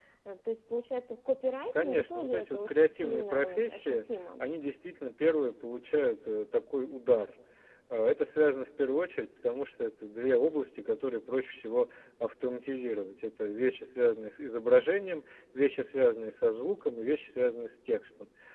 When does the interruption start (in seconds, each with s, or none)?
1.8 s